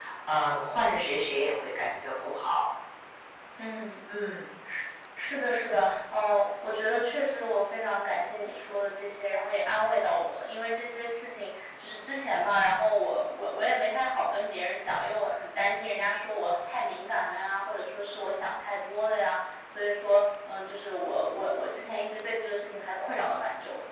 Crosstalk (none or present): none